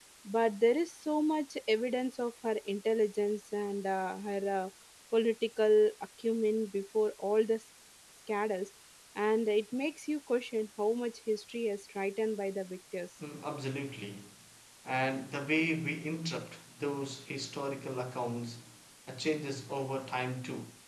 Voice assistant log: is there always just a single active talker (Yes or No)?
Yes